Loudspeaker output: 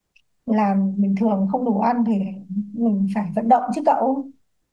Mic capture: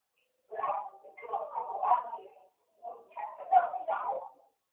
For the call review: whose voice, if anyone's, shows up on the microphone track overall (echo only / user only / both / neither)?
echo only